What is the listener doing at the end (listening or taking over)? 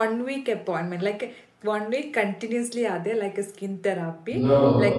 listening